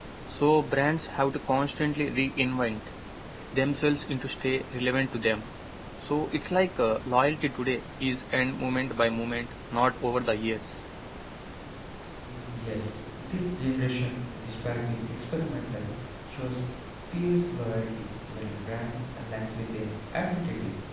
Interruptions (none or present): none